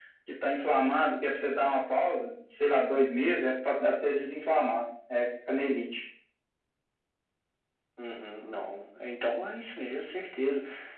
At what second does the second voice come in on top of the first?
none

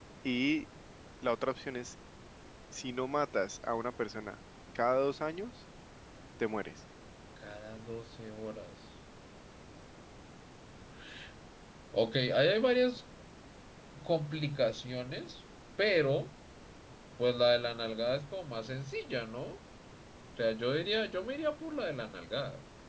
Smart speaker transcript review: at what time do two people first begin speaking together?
none

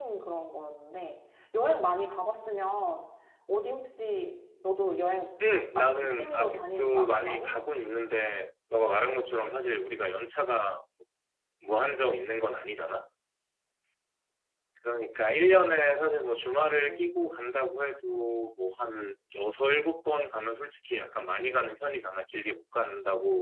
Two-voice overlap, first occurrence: 5.8 s

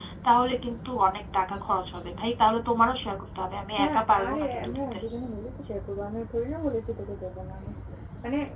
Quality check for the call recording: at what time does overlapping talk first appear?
3.8 s

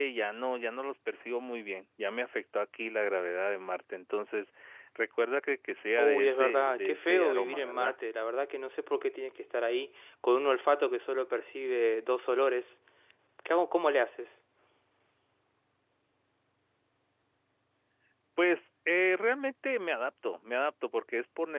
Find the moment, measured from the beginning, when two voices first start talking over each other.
6.0 s

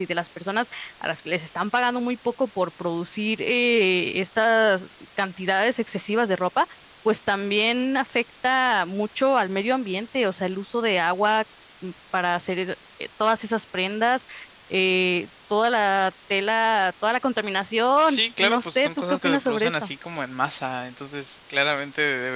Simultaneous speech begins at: 18.1 s

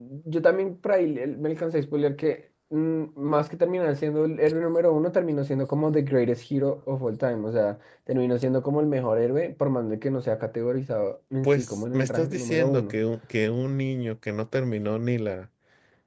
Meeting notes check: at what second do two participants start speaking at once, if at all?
11.4 s

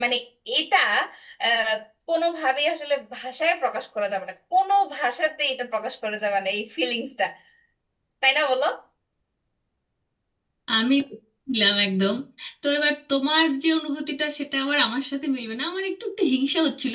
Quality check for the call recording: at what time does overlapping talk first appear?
none

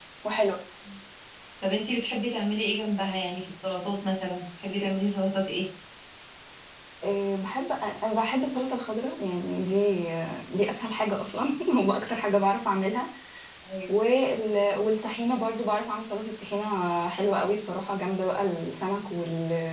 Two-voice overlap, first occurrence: none

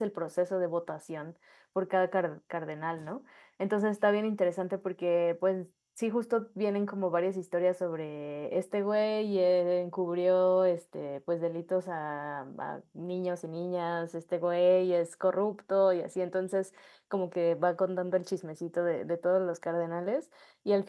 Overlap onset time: none

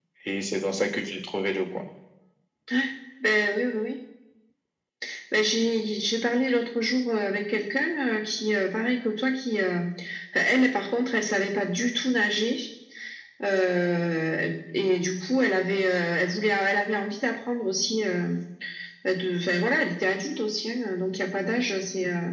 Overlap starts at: none

